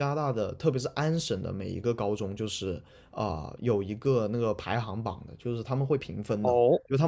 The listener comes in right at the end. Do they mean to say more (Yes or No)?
No